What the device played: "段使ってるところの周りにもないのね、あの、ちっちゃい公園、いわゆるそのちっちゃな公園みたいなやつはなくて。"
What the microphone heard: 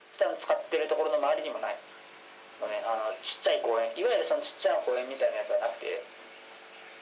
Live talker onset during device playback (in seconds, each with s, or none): none